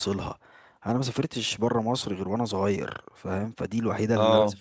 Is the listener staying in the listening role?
Yes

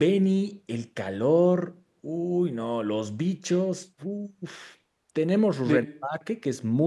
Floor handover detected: No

